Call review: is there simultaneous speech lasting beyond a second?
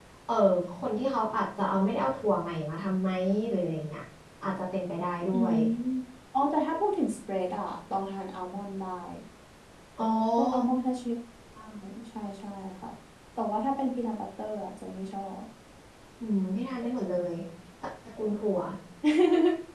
No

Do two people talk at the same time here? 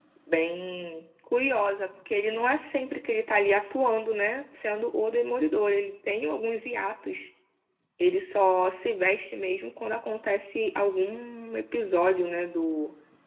No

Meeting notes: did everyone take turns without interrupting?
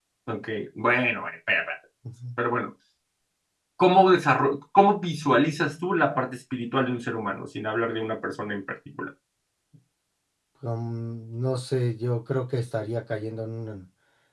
Yes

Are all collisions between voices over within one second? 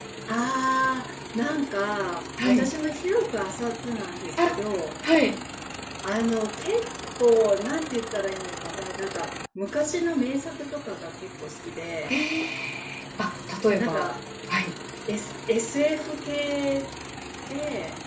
Yes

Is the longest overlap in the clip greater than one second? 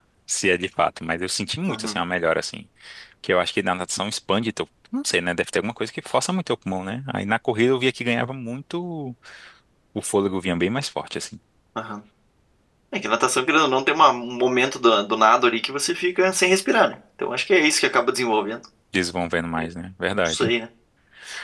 No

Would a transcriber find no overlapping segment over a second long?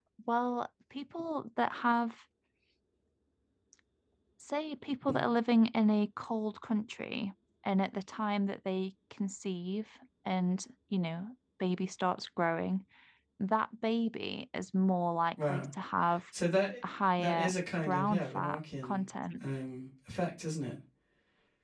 No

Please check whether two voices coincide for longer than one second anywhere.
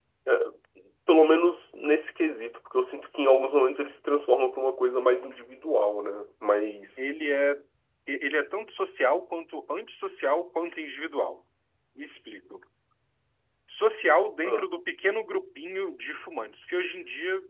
No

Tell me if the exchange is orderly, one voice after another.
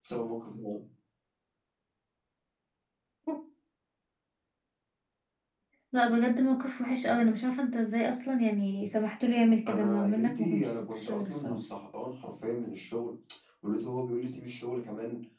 No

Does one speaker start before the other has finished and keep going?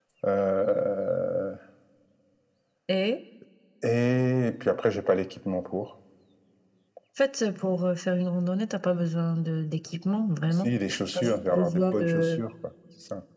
Yes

